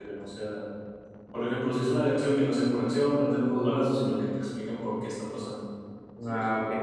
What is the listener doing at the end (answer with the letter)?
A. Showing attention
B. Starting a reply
B